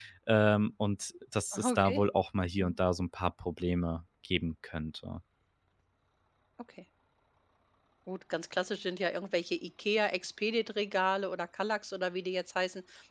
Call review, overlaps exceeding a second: none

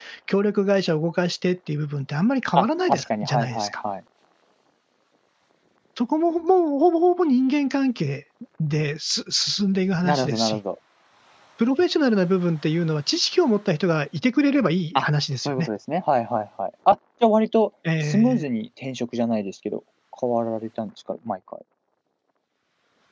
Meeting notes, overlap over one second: present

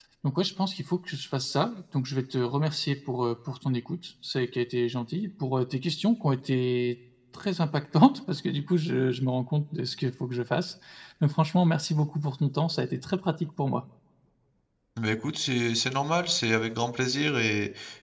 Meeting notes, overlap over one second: none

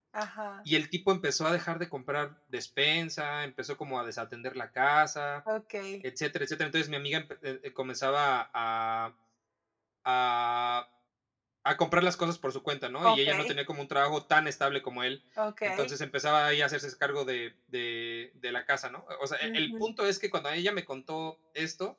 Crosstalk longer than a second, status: none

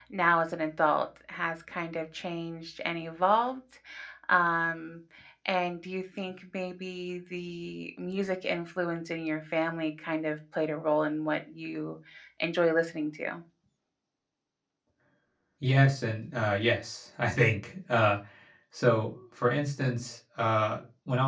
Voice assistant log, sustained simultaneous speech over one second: none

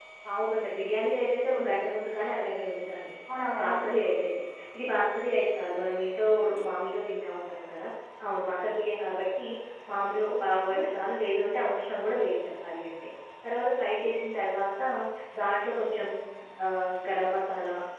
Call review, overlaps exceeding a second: none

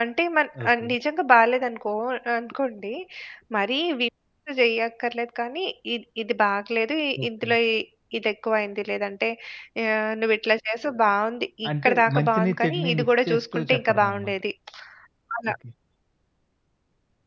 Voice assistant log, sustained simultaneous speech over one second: present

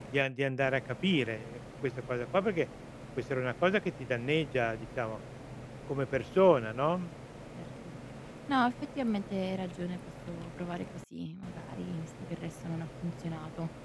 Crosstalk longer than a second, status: none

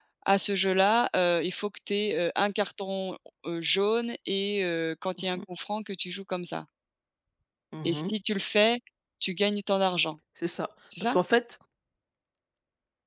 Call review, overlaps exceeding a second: none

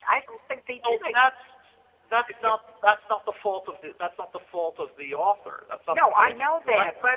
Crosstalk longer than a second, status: present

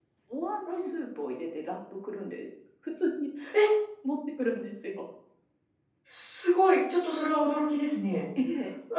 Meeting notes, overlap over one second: none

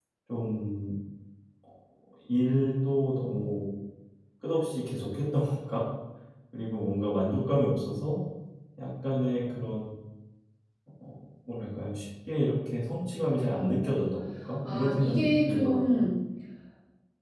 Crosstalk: present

